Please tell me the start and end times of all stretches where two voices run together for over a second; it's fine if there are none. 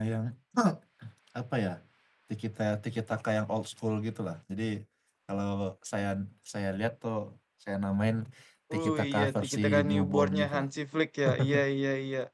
8.8-10.6

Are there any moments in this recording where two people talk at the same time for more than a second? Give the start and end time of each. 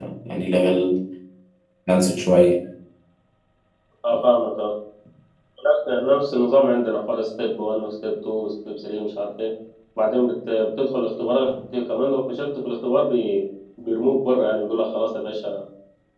none

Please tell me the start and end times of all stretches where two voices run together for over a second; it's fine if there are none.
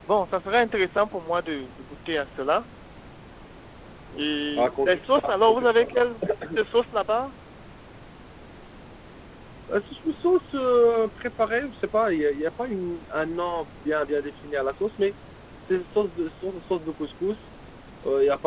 4.5-5.9

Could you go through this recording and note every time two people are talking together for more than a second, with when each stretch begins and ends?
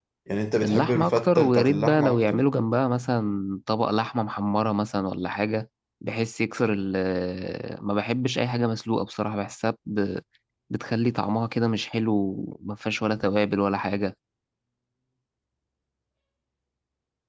0.6-2.4

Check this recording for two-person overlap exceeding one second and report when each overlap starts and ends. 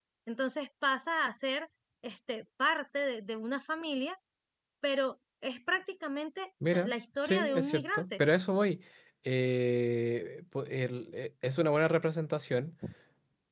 6.7-8.2

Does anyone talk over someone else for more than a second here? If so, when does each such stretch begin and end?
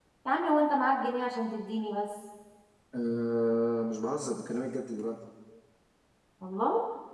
none

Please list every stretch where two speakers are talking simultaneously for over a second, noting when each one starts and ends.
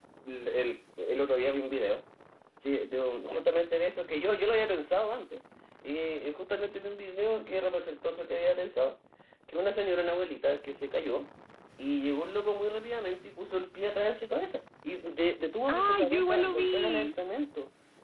15.7-17.1

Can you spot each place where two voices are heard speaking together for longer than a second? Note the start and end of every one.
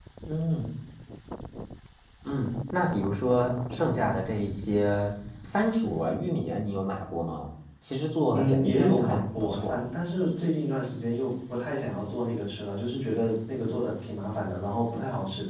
8.3-9.8

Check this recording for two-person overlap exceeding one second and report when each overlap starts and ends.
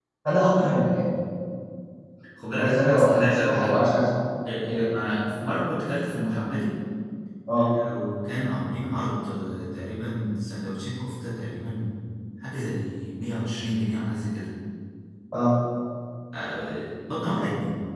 2.6-3.8

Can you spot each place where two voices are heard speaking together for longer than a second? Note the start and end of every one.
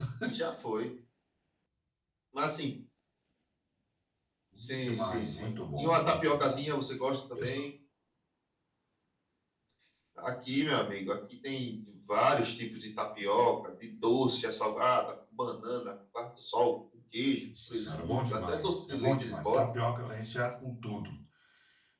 4.6-6.6, 17.7-19.6

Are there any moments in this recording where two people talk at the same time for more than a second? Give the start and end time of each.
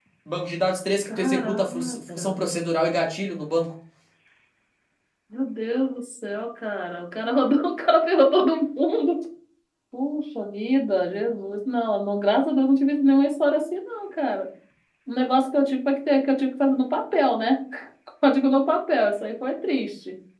1.1-2.3

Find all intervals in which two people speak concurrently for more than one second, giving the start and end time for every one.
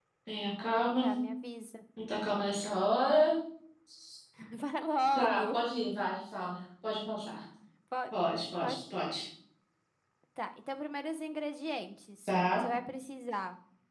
none

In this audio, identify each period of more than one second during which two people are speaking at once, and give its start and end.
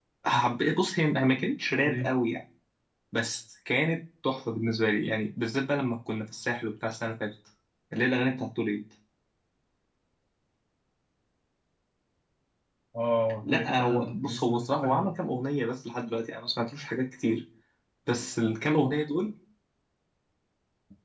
13.4-15.1

